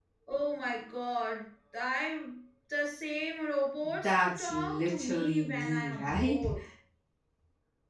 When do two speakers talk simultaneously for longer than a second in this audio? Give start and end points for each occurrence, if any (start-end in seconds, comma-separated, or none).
4.0-6.4